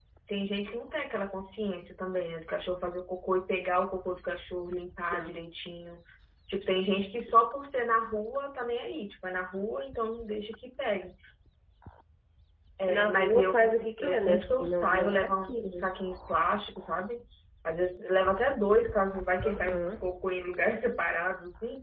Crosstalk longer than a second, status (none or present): present